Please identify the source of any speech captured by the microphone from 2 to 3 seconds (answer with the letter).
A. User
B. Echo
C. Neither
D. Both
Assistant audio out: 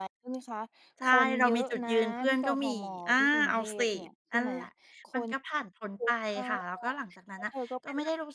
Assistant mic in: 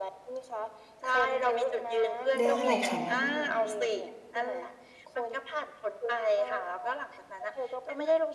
D